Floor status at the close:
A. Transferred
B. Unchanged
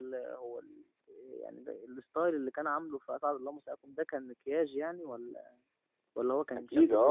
A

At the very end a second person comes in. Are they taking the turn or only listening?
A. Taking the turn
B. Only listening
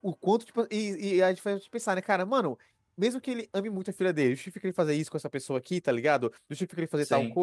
B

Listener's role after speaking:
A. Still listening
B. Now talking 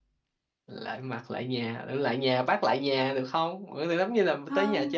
B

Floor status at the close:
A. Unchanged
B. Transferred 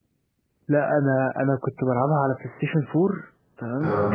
A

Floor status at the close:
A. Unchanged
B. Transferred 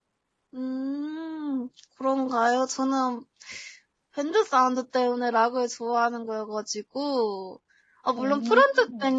A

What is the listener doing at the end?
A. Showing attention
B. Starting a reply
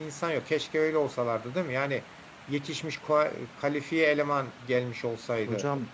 B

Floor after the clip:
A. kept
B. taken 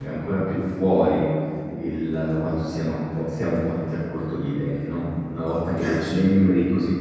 A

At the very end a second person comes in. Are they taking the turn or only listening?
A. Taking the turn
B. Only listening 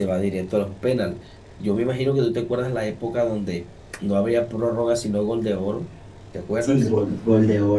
A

